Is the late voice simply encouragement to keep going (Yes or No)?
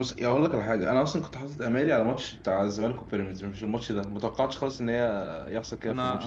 No